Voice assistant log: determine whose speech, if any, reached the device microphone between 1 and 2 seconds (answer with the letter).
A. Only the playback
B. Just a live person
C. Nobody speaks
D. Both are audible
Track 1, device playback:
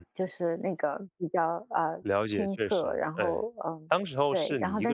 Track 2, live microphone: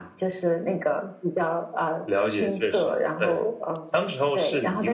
A